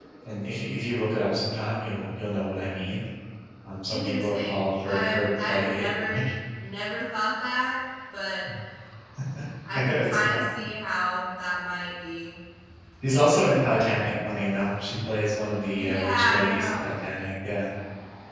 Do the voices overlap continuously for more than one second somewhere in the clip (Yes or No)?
Yes